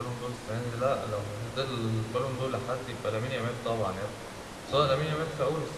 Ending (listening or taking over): listening